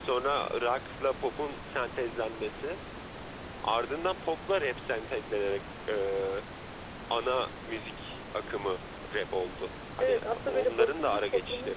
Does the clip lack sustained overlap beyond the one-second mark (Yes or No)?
No